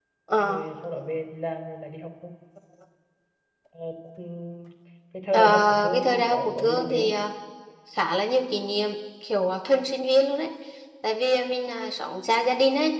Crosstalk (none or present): present